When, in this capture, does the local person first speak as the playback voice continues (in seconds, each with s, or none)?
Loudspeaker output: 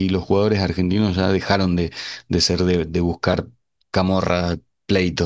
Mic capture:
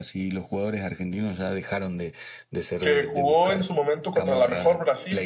2.8 s